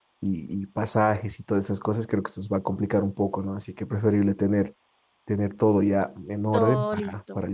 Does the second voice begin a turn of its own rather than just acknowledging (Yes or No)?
Yes